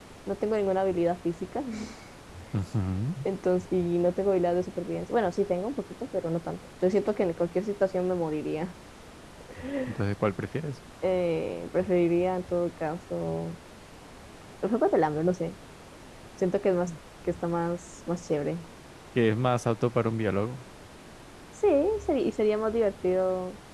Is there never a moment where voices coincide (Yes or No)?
Yes